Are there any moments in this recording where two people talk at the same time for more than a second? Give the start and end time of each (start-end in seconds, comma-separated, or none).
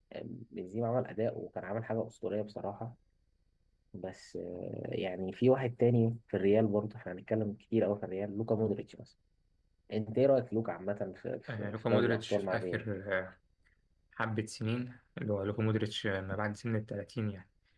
11.5-12.8